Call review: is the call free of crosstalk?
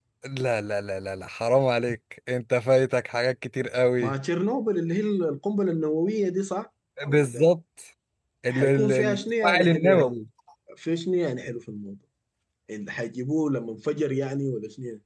No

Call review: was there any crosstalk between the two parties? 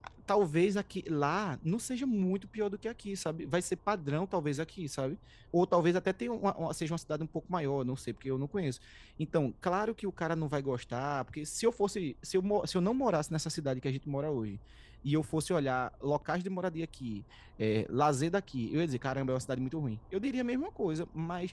No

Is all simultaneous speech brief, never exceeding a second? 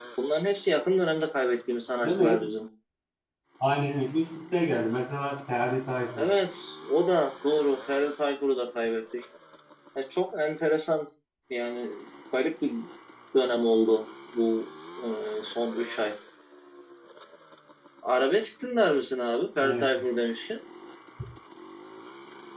Yes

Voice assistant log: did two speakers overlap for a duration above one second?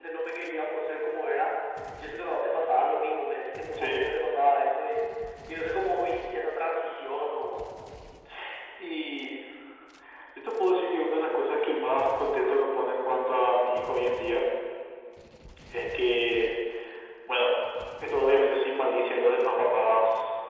No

